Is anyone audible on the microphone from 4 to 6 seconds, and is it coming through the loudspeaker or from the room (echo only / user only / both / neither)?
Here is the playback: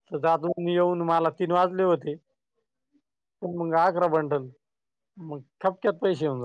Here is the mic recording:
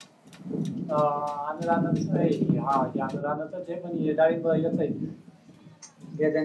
user only